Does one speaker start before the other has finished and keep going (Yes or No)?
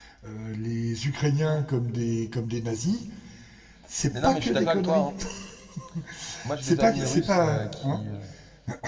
Yes